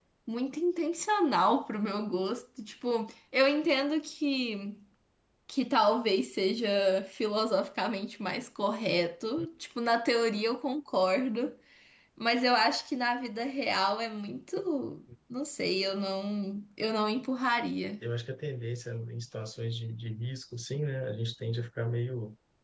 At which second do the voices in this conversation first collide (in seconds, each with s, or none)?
none